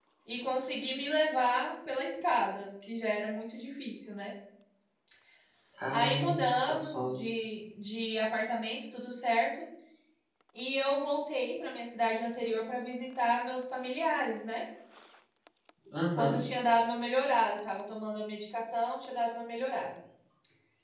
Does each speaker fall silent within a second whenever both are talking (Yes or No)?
No